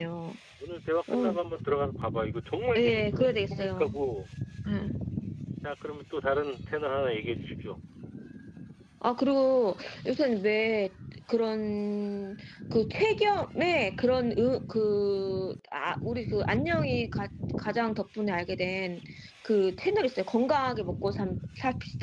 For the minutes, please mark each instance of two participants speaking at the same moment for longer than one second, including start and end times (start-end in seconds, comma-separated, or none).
2.8-4.0